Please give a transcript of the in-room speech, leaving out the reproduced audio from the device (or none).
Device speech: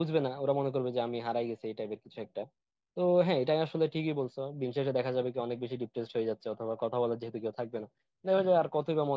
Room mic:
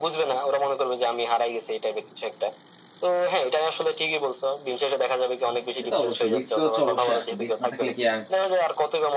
এটা তো অবশ্যই রিস্ক তো হচ্ছে অবশ্যই আছে রিস্ক না থাকলে কি আর